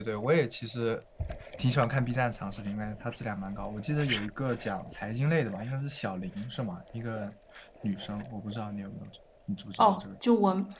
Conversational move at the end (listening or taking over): taking over